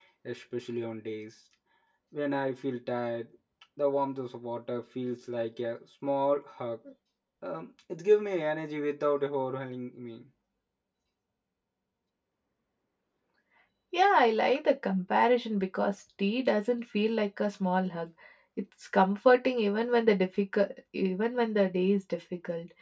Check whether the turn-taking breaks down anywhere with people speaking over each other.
No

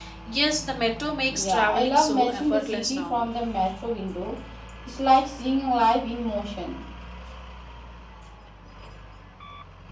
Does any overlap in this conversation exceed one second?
Yes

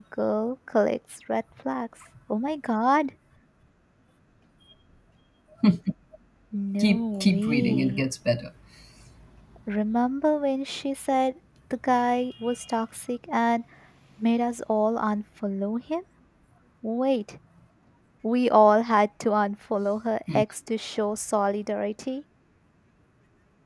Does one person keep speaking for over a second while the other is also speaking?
Yes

